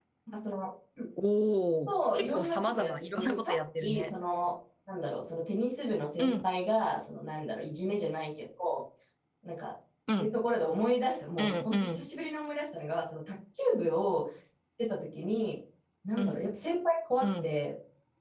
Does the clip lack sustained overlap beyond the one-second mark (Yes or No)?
No